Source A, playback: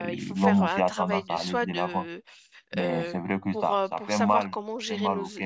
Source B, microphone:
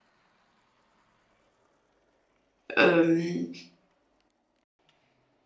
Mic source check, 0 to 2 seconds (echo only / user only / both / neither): neither